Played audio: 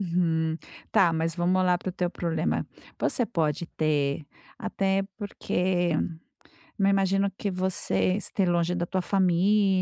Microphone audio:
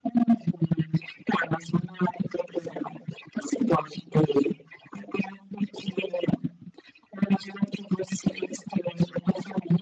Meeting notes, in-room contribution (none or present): none